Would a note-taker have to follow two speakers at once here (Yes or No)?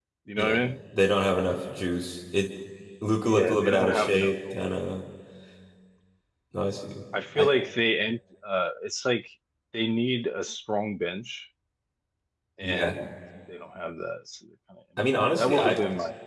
Yes